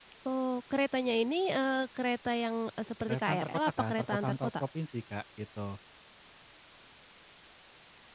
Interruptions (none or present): present